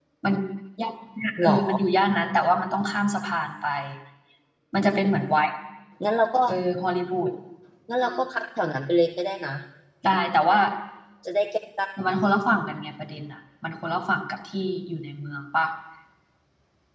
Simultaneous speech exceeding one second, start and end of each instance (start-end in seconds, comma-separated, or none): none